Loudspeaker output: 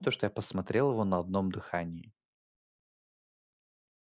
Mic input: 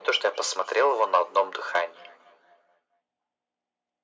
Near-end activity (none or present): none